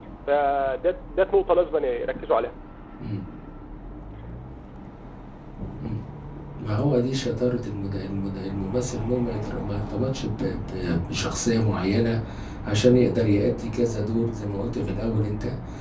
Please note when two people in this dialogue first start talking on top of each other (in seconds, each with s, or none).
none